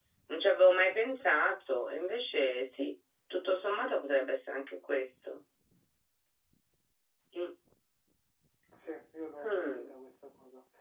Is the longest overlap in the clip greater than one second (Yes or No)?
No